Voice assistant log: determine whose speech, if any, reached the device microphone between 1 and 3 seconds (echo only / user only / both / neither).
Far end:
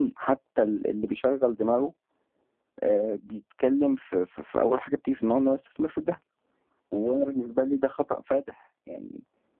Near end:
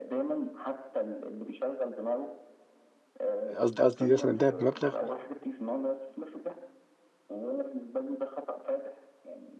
echo only